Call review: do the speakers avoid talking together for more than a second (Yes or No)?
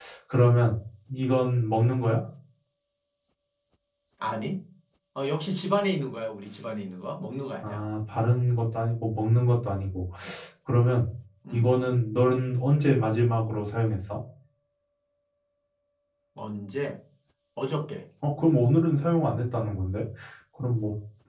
Yes